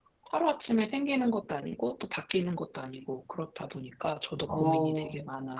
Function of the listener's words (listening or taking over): taking over